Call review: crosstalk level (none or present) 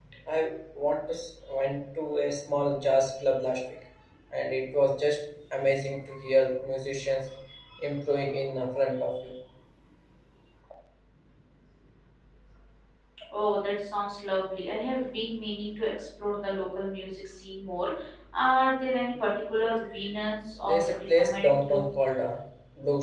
present